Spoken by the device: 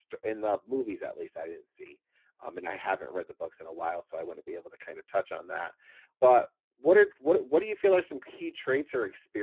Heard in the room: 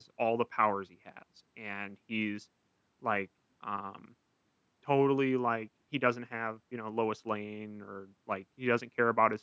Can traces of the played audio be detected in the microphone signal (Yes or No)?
No